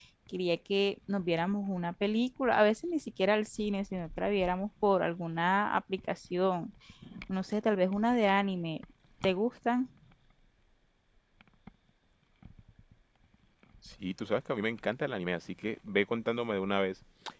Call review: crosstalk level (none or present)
none